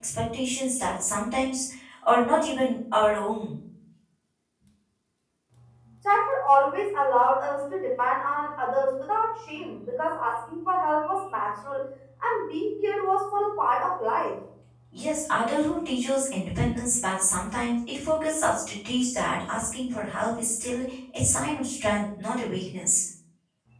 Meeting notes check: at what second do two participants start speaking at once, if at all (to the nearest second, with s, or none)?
none